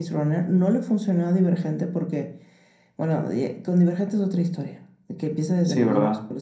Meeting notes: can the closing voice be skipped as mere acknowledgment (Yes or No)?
Yes